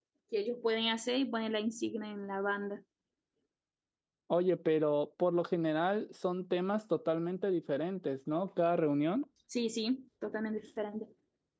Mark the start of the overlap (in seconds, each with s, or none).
none